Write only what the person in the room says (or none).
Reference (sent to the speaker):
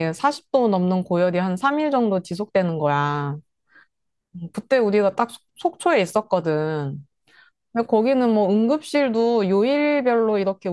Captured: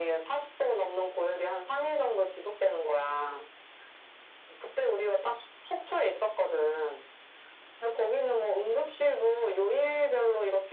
none